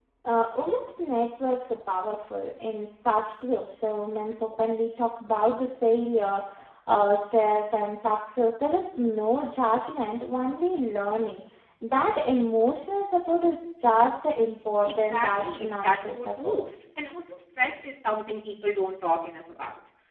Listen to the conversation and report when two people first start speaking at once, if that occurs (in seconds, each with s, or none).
14.8 s